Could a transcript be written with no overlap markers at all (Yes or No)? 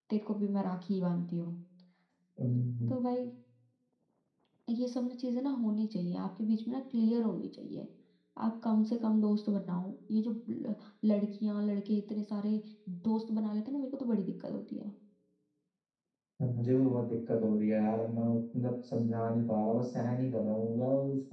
Yes